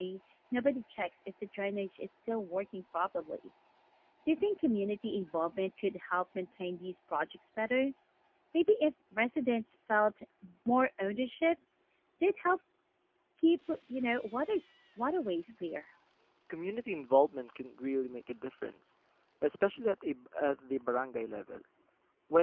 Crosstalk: none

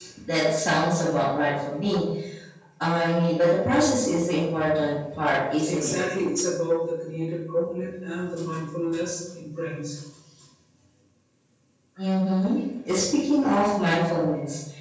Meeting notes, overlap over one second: none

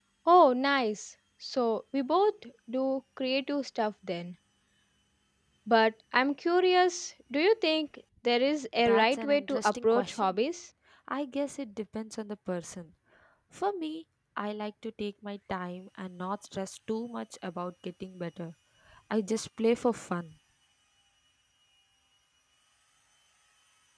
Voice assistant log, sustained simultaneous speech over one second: present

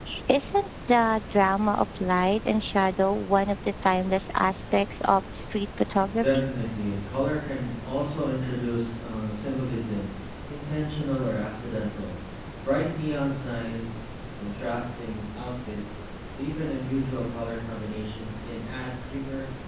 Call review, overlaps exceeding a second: none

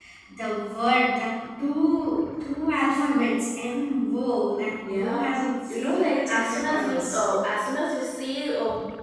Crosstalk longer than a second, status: present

